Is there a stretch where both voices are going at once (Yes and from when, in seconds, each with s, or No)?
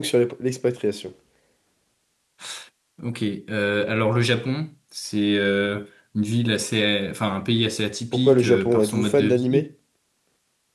Yes, from 8.1 s